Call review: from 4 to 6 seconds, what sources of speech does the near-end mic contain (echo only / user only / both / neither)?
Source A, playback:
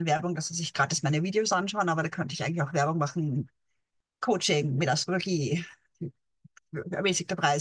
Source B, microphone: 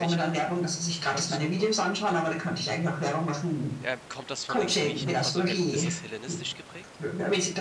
both